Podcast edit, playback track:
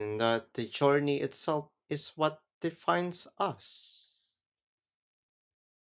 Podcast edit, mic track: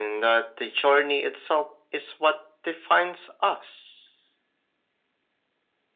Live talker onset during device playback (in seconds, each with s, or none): none